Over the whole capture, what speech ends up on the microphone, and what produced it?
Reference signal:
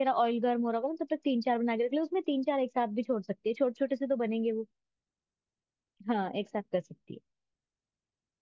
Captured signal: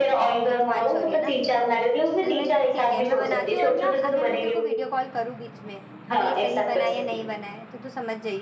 both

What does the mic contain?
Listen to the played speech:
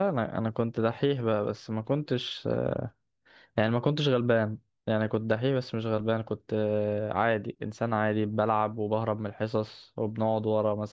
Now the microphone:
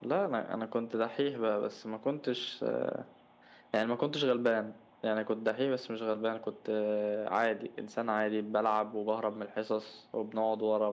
echo only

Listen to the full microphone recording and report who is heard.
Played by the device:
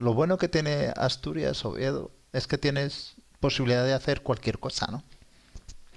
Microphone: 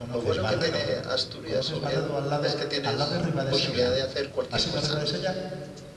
both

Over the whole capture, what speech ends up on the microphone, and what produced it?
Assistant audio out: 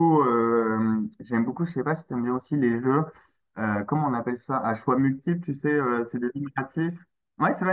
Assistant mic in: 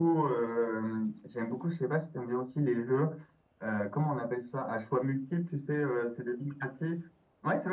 echo only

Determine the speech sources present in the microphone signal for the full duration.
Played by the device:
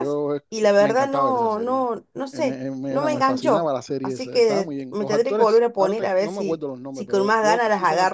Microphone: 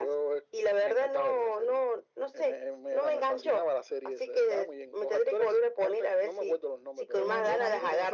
both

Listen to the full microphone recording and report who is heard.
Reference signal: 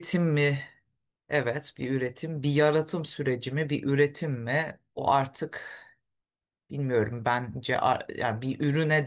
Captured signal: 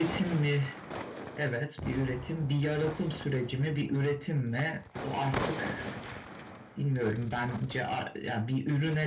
echo only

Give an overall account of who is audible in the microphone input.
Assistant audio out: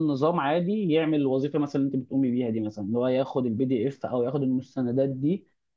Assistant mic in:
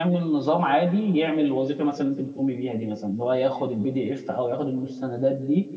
echo only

